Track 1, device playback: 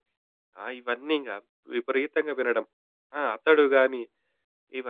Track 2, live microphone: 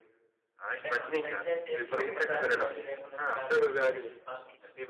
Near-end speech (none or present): present